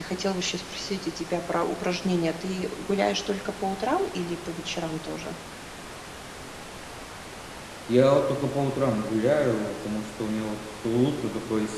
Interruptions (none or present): none